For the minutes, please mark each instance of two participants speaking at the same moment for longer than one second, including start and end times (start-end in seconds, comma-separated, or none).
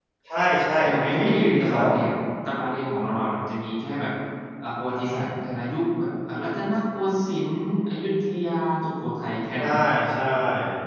0.8-2.0